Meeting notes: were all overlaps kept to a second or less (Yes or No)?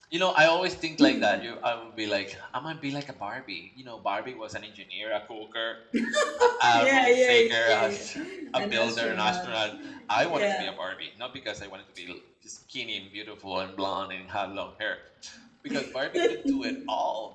No